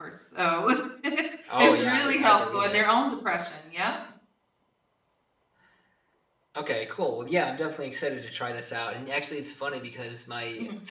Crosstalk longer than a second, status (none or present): present